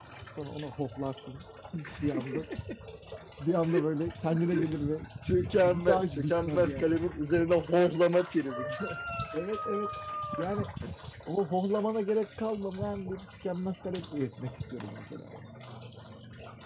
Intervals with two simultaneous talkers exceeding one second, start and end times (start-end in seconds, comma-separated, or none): 5.6-7.0